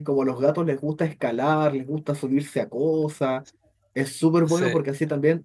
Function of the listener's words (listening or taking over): listening